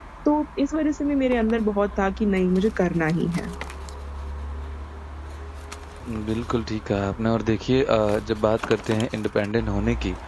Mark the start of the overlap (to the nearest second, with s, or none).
none